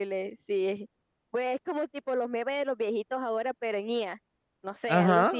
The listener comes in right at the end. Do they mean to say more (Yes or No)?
Yes